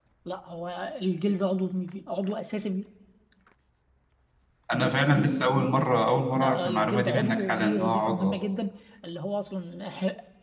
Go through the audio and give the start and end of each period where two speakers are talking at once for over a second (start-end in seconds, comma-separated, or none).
6.4-8.4